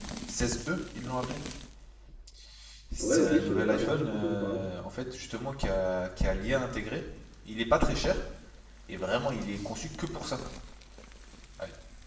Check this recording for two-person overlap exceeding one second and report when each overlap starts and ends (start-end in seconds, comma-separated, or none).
3.0-4.6